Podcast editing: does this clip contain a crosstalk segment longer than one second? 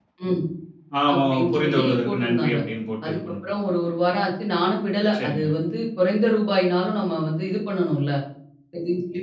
Yes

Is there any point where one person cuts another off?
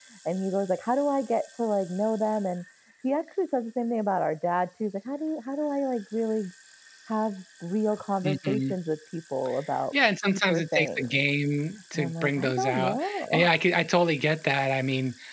Yes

